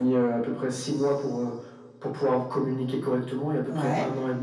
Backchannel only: Yes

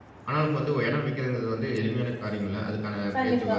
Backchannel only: Yes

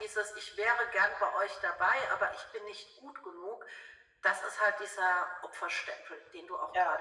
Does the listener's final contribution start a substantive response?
Yes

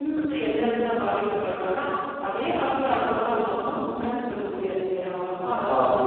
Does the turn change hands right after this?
No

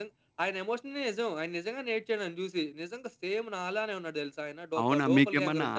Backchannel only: No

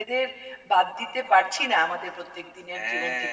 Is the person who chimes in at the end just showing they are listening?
No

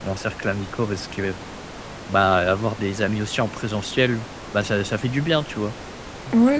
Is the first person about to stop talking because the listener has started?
Yes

